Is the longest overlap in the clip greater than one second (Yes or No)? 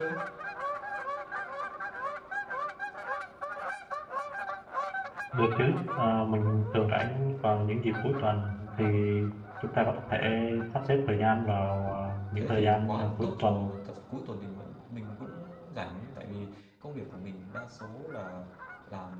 Yes